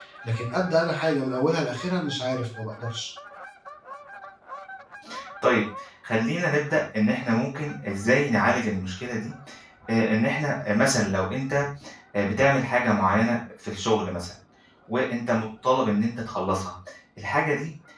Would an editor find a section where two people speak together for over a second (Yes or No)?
No